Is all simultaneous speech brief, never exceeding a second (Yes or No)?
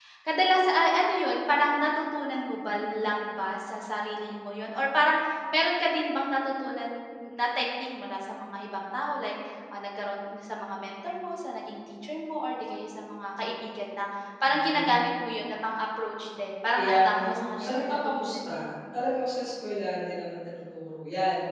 No